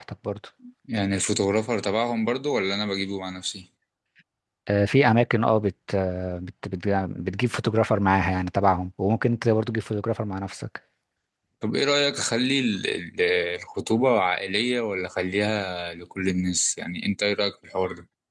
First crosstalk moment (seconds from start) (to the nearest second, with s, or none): none